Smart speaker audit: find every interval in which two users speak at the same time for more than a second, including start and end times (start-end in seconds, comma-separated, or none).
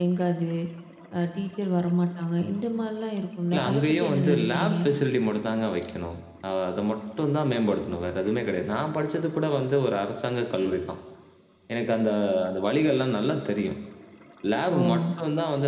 3.5-4.8